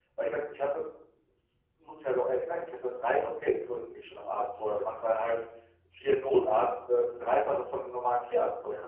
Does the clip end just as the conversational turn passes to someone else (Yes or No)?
No